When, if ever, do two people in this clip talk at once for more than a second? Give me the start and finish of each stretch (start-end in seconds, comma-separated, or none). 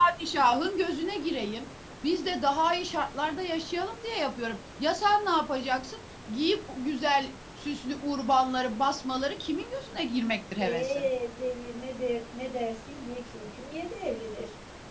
none